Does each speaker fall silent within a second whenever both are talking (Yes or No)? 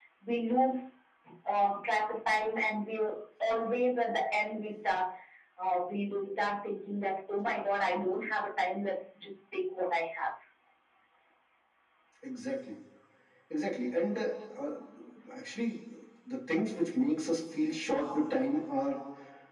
Yes